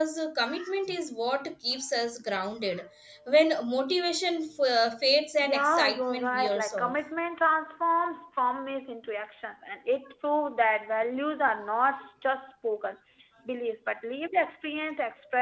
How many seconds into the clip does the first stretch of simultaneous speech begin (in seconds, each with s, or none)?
5.4 s